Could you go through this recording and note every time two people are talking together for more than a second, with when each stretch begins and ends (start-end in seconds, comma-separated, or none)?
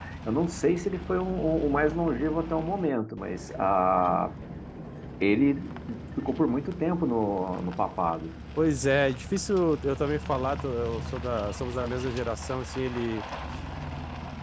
none